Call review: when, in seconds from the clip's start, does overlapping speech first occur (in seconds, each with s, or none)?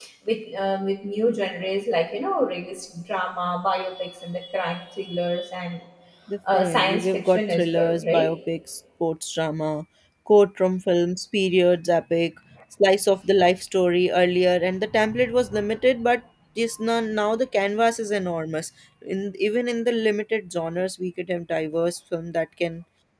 6.5 s